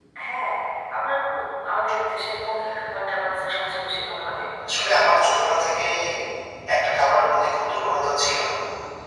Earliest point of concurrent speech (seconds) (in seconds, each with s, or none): none